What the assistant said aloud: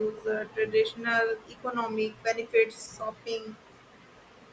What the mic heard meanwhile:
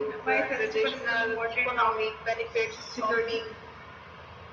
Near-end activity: present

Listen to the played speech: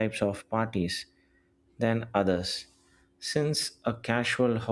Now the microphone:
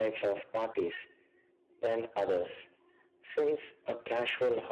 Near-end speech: none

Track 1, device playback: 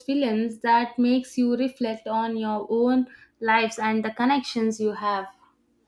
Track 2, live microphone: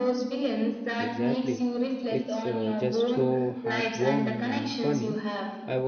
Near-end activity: present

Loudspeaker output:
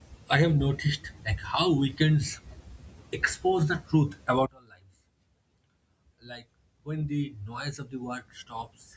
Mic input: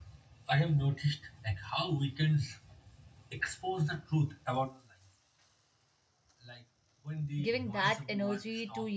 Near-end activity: present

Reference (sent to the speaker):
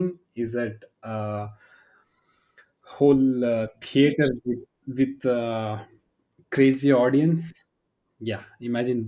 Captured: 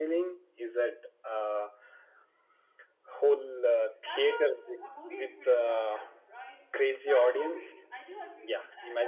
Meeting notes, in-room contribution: present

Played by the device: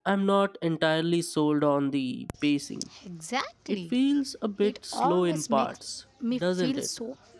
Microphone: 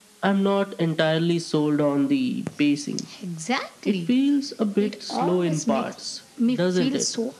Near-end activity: none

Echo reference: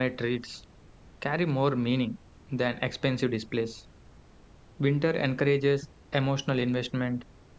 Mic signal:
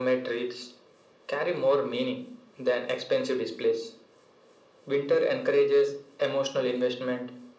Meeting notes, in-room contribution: none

